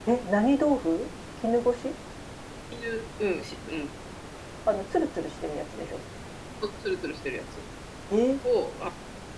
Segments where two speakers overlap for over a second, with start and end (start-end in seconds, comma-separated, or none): none